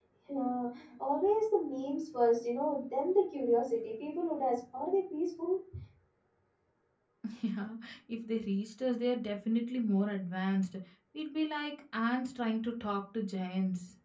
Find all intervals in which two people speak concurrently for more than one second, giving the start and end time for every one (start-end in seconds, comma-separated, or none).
none